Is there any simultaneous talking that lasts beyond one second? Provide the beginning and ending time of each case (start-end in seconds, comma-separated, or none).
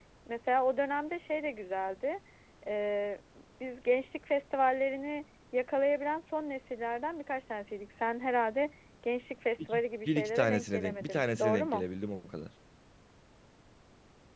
9.7-11.8